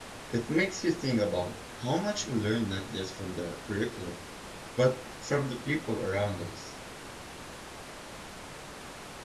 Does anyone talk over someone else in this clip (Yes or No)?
No